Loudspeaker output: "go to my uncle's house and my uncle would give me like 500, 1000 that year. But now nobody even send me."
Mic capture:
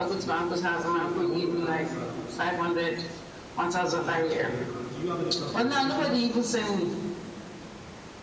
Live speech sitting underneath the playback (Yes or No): Yes